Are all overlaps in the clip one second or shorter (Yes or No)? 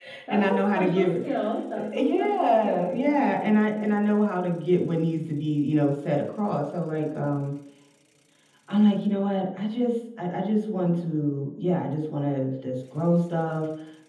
No